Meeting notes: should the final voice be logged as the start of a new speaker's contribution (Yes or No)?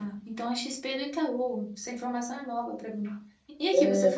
No